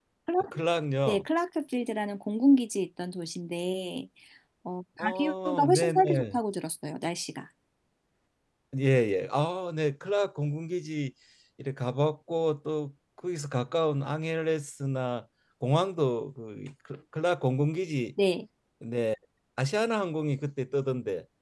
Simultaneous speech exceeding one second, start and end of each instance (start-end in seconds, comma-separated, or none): 5.0-6.4